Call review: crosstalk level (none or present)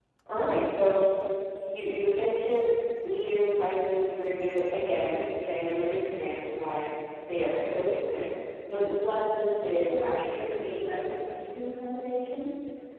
present